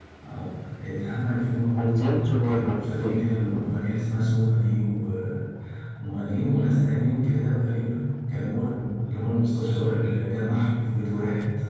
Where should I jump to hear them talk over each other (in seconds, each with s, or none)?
1.8 s